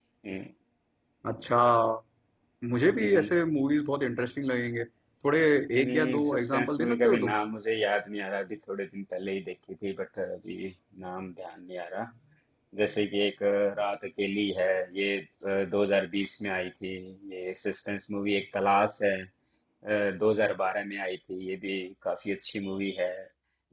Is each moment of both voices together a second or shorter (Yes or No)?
No